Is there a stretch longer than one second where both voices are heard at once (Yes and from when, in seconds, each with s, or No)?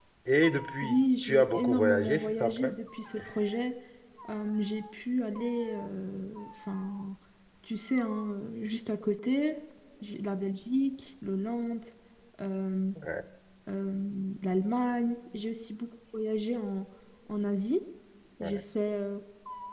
Yes, from 0.8 s